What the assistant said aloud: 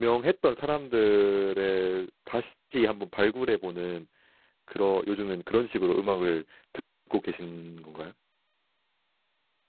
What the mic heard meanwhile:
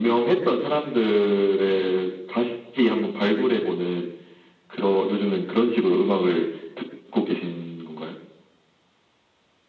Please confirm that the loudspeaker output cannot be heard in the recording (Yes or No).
No